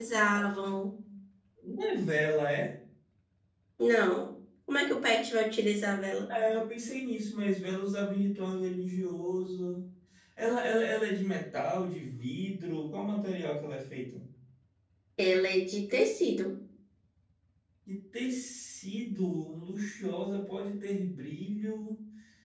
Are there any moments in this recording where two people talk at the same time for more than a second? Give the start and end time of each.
none

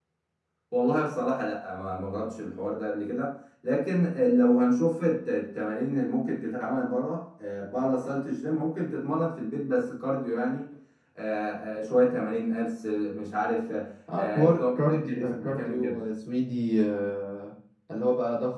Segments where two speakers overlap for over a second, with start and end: 14.2-16.0

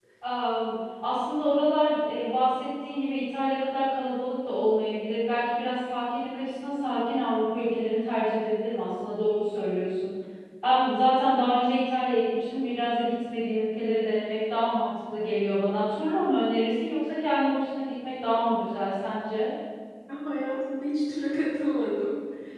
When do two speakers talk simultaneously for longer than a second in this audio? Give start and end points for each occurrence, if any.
none

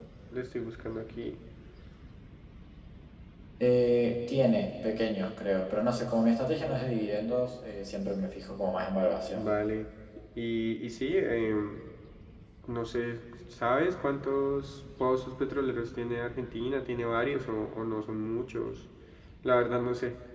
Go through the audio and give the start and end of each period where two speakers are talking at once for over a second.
none

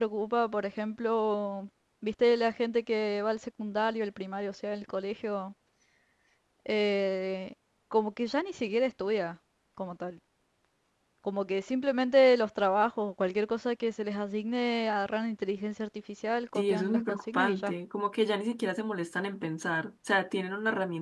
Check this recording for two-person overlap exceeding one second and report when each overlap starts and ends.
16.6-17.8

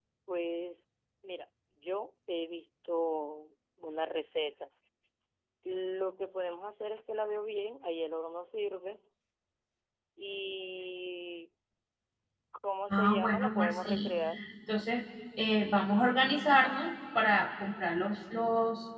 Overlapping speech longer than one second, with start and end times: 12.9-14.1

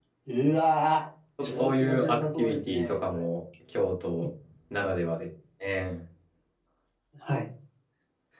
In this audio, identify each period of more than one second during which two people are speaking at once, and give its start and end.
1.4-3.2

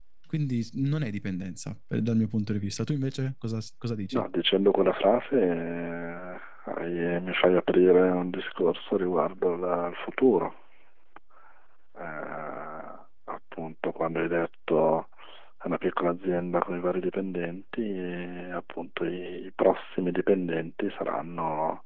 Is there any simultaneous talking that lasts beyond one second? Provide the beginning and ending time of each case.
none

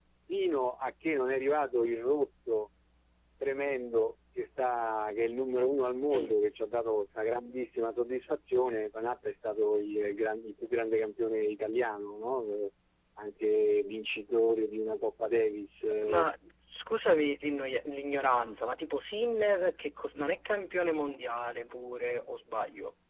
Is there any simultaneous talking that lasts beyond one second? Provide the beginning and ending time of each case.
none

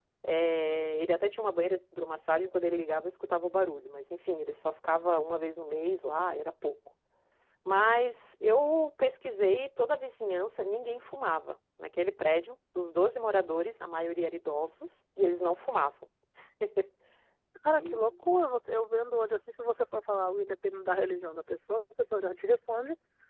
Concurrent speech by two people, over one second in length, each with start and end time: none

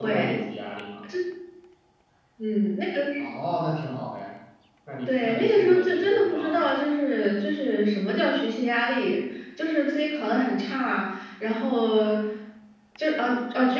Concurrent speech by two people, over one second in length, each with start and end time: 5.2-6.7

